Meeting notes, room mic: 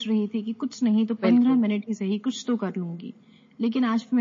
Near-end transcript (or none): बिल्कुल।